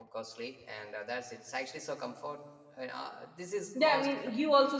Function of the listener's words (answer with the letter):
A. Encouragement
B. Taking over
B